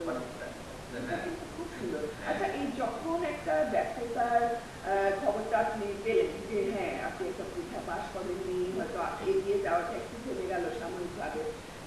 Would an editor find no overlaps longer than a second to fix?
No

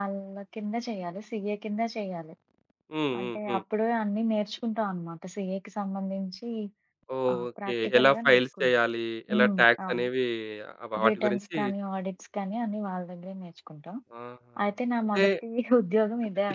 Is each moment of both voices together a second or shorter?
No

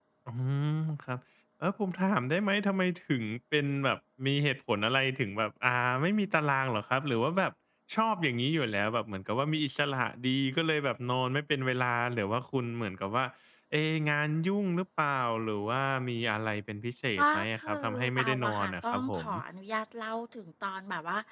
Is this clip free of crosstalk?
No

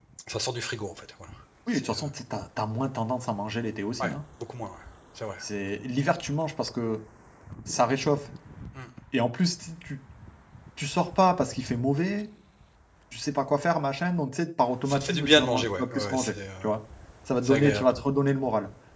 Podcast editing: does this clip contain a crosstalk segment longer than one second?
Yes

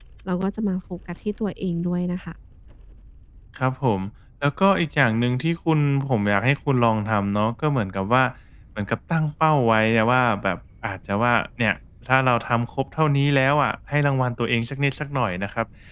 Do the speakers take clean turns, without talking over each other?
Yes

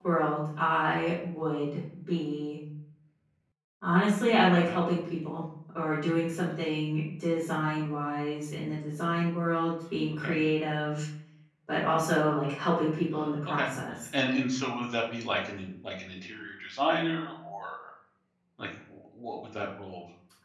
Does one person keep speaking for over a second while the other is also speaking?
No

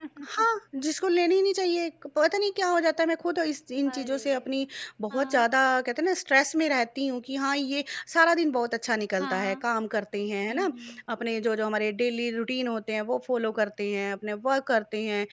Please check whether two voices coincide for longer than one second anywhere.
No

